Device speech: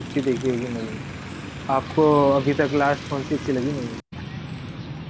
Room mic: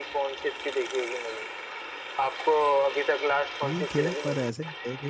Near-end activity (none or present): present